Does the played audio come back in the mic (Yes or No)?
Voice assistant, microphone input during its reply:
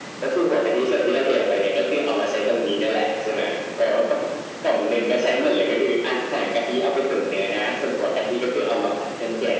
Yes